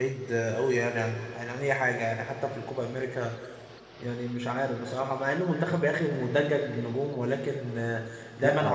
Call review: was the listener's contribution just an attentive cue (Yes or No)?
Yes